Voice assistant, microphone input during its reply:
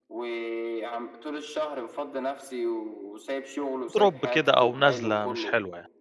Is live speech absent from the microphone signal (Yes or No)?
No